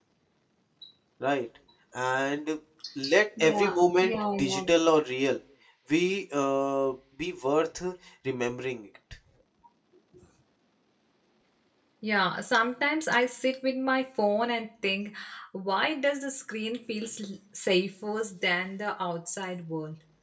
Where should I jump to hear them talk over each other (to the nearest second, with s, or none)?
3 s